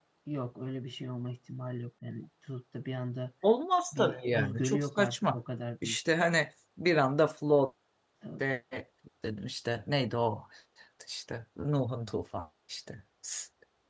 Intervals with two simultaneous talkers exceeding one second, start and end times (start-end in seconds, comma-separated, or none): 3.9-5.4